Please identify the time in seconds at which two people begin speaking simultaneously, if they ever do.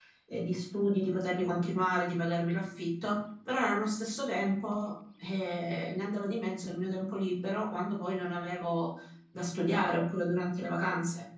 none

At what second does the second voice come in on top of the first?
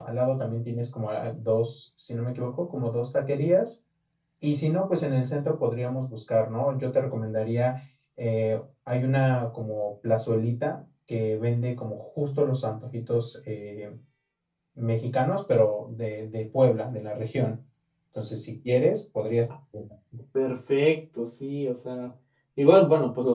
none

